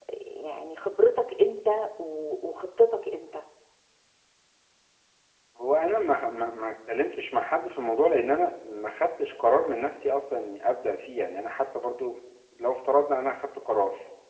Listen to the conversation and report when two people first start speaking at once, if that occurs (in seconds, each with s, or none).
none